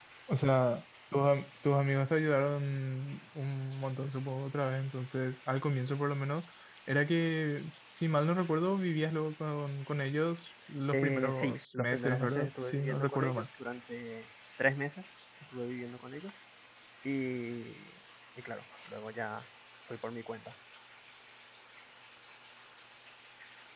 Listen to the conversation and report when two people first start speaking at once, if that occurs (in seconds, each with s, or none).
10.9 s